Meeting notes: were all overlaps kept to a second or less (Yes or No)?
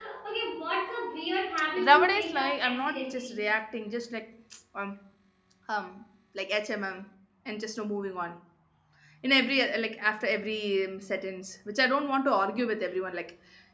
No